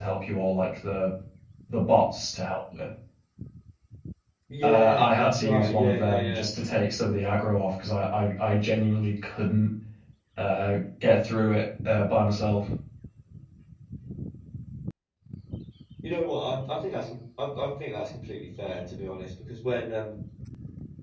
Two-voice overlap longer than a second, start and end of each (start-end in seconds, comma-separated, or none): 4.6-6.4